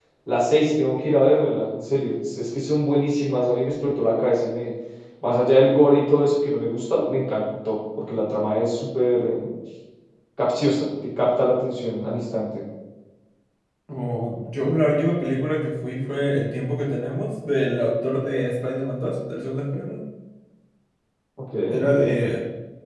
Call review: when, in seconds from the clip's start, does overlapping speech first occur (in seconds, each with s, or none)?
none